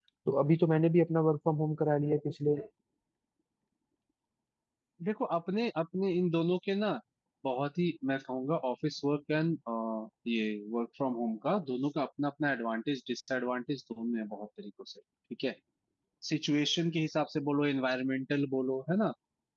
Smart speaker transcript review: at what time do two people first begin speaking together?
none

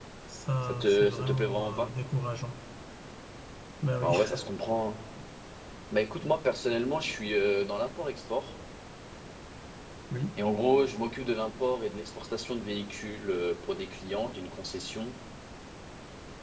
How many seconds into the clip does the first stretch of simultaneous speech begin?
1 s

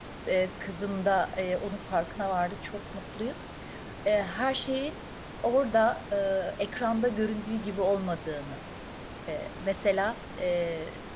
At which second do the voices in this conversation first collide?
none

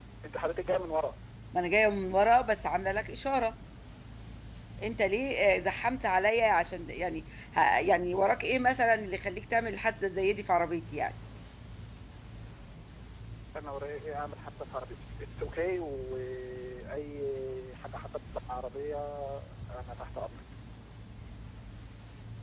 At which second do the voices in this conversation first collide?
none

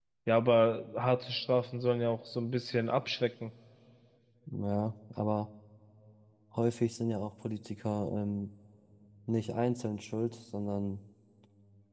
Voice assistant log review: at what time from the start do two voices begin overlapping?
none

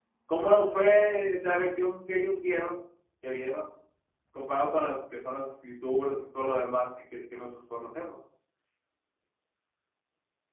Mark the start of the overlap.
none

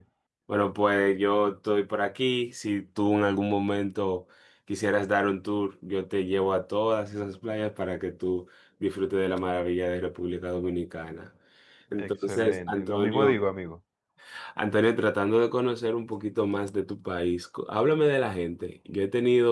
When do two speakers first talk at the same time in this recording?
12 s

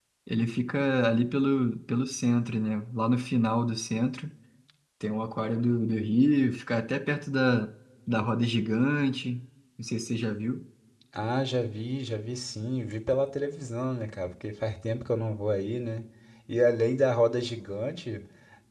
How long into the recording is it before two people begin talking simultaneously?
none

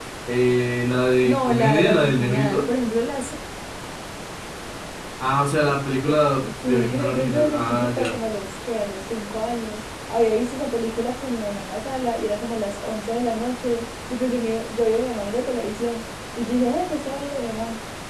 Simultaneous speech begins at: 1 s

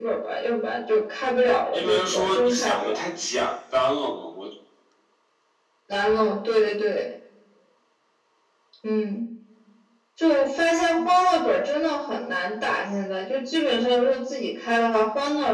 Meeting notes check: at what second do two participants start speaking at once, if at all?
2 s

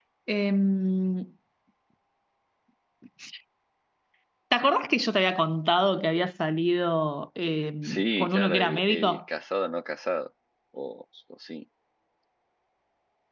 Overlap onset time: 8 s

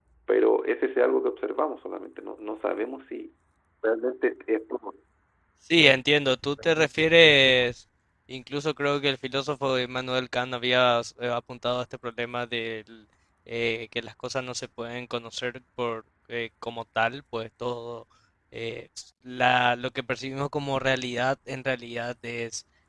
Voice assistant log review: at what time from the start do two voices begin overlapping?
none

